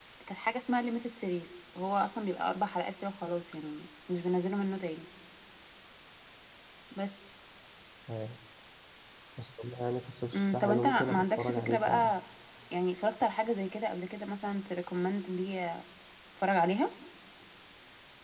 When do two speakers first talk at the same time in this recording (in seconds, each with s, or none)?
10.3 s